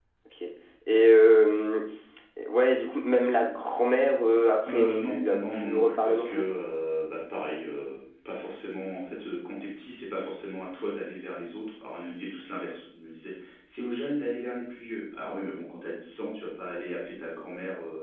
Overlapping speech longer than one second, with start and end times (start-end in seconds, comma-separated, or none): 4.7-6.4